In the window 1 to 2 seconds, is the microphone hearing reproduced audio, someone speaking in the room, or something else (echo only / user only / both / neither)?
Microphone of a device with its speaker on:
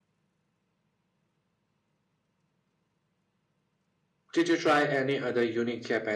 neither